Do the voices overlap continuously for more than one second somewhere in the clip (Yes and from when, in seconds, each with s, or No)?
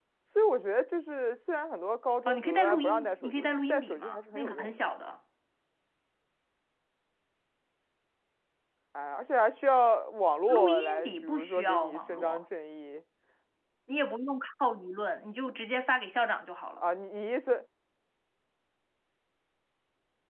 Yes, from 2.3 s